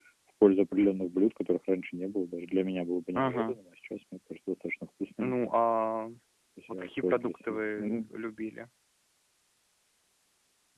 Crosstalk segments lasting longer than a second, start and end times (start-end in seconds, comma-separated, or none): 6.7-8.1